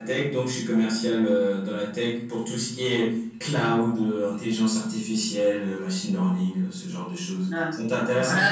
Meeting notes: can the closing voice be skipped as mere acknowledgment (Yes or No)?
No